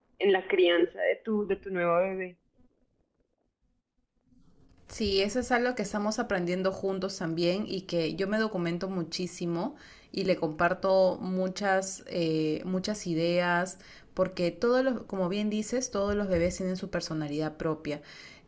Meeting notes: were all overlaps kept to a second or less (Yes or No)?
Yes